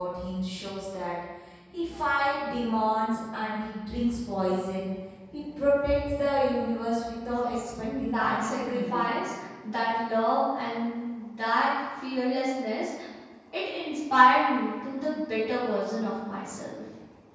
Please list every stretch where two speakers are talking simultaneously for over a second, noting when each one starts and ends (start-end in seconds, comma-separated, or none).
7.2-9.2